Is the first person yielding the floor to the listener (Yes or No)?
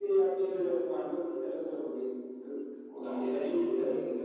Yes